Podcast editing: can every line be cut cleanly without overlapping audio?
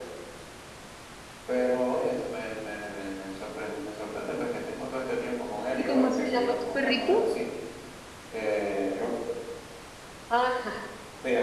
No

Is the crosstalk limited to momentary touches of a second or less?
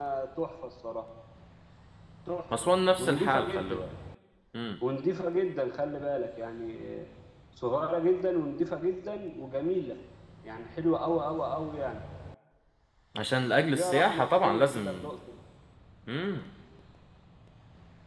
No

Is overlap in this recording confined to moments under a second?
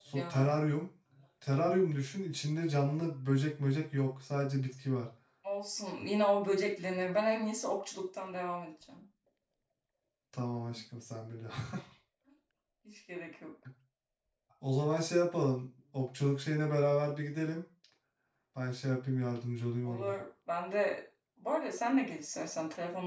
Yes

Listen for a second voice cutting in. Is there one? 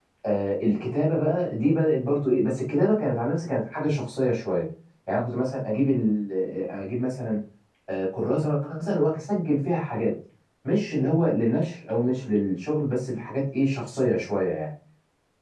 No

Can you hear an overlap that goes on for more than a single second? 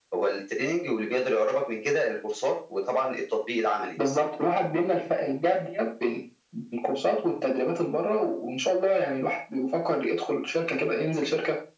No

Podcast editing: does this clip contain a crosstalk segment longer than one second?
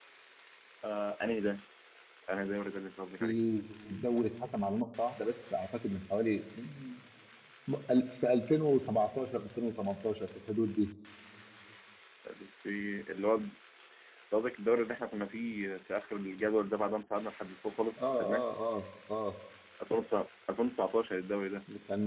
No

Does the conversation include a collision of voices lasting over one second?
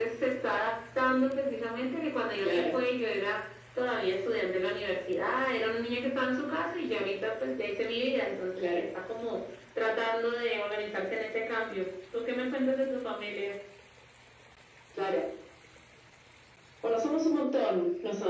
No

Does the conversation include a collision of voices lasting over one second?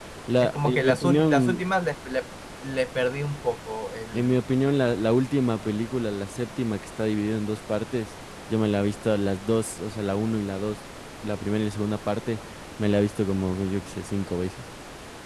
Yes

